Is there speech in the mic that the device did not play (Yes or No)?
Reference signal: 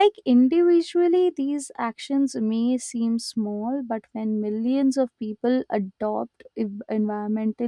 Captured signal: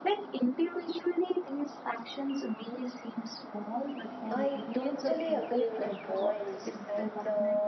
Yes